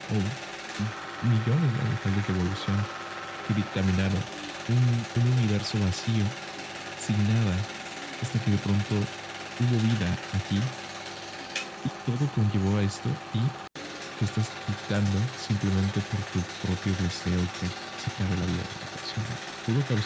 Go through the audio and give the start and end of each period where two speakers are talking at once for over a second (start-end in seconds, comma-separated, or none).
none